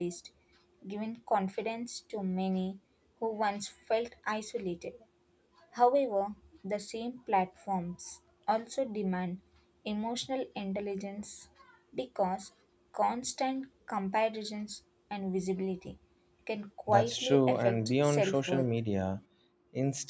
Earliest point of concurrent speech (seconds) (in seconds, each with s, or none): 16.9 s